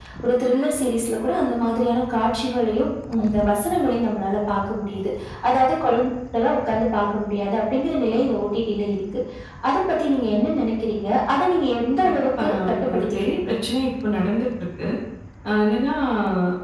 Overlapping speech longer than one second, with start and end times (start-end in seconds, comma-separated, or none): 12.0-13.5